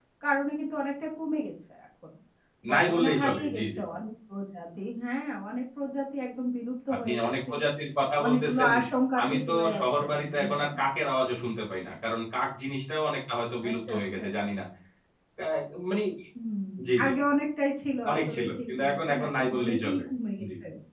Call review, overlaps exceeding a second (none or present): present